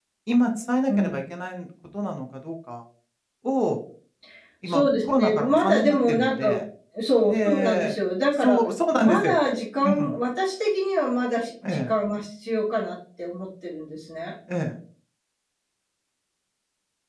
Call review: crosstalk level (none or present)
present